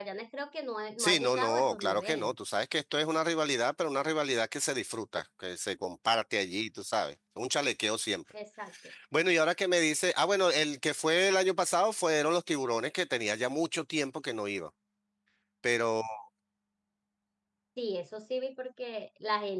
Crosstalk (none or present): present